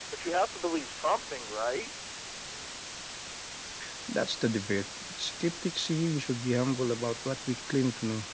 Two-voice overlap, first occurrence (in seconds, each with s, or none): none